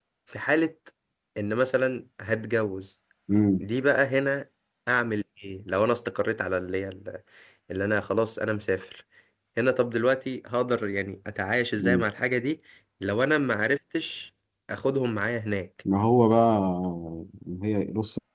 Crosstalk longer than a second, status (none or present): none